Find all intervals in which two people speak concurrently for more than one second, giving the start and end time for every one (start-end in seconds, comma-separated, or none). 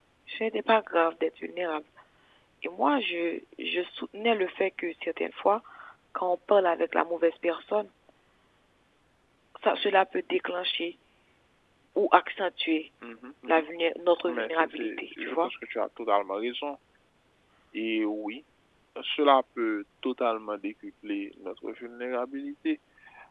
14.3-15.5